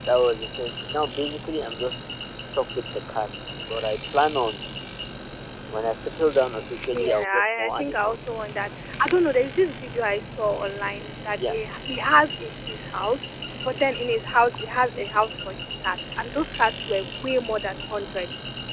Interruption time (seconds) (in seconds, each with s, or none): 6.9 s